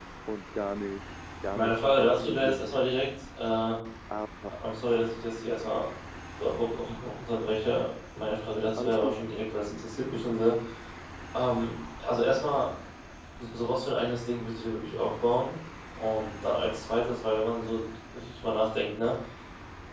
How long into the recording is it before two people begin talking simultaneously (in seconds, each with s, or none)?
1.6 s